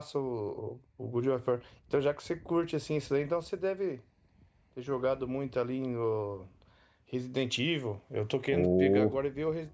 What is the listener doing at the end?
listening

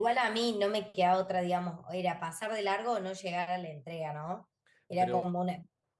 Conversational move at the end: listening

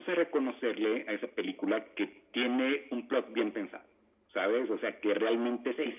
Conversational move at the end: listening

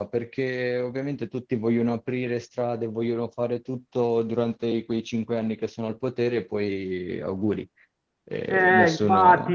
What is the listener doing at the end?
taking over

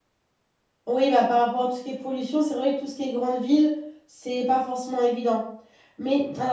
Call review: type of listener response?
listening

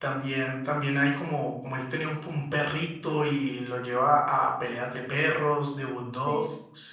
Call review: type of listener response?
taking over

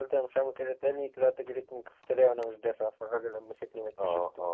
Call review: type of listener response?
taking over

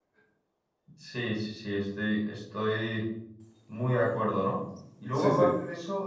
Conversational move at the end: listening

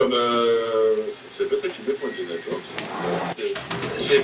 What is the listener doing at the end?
taking over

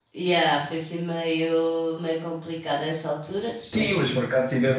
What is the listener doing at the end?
taking over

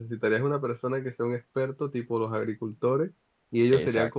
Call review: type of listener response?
listening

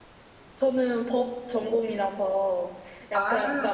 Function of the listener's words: listening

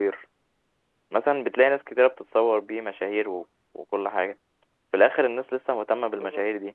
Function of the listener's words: listening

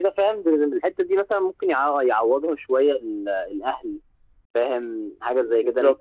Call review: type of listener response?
listening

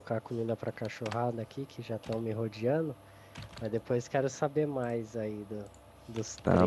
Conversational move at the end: taking over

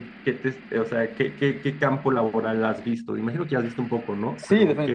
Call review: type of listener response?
taking over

